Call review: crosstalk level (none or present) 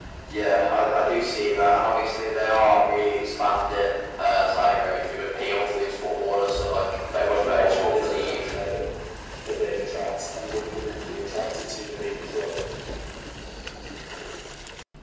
present